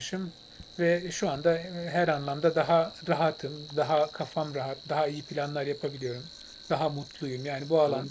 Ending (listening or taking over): listening